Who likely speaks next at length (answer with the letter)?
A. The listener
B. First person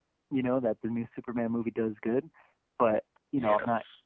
B